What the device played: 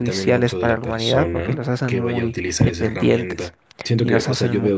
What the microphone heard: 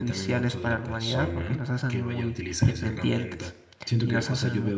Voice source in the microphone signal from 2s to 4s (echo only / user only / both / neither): echo only